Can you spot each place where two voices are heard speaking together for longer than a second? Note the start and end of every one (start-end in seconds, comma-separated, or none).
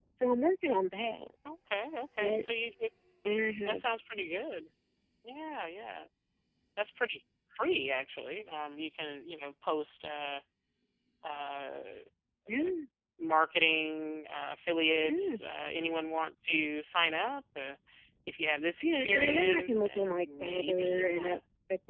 18.8-21.4